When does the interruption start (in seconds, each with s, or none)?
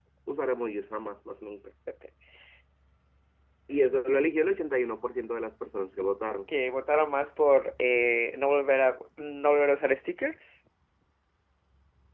none